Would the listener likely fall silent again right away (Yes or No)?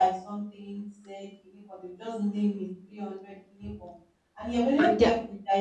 Yes